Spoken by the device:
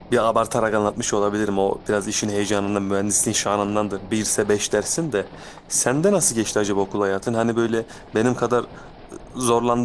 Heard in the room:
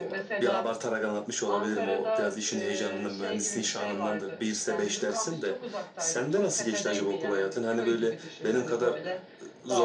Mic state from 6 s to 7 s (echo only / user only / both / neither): both